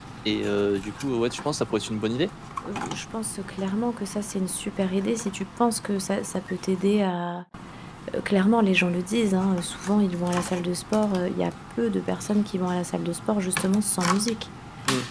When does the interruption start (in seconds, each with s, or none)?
none